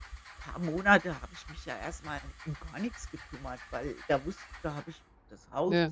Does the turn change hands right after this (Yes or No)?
No